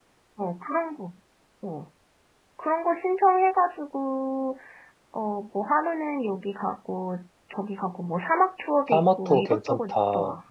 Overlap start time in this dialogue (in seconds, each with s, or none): 8.9 s